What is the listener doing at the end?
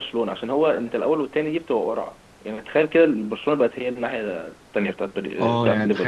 taking over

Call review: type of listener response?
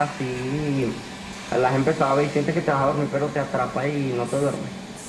taking over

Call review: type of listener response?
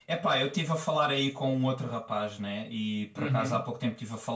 listening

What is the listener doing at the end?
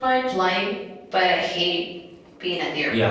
taking over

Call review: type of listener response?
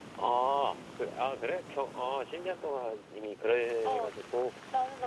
taking over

